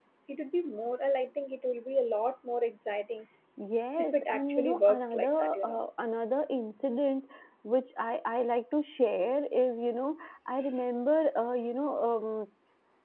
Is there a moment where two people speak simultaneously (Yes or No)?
Yes